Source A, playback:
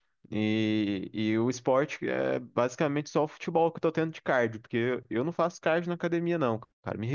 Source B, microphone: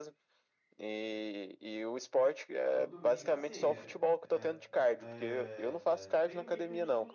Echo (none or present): present